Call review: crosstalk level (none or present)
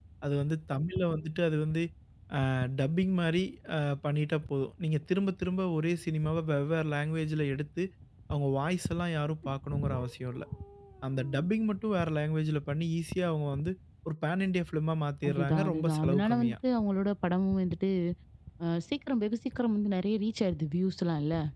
present